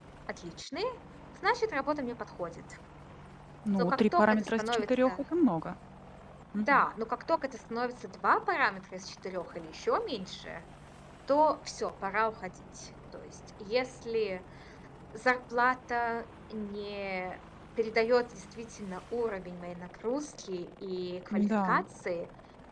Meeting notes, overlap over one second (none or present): present